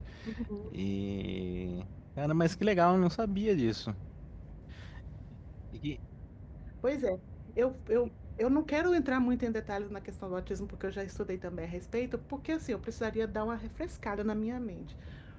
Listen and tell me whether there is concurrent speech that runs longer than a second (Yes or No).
No